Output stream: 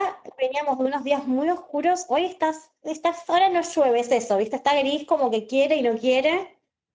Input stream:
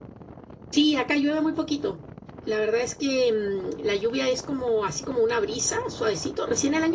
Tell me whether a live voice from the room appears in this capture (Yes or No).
Yes